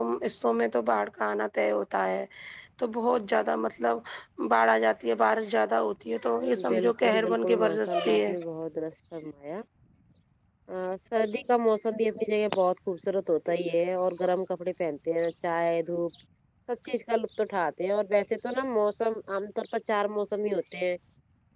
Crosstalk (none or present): present